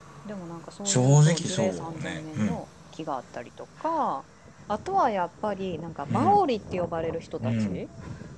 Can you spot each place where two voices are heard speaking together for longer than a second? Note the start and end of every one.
0.8-2.6

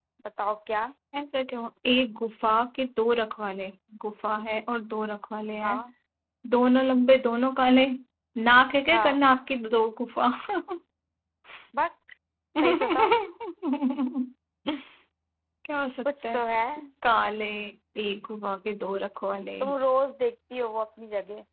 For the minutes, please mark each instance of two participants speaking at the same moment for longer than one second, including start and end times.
none

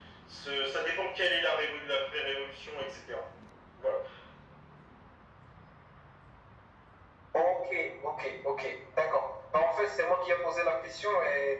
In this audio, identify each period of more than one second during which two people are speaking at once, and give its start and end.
none

